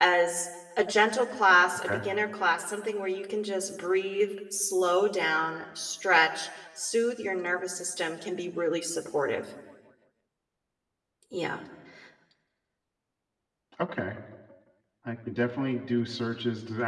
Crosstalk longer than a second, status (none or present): none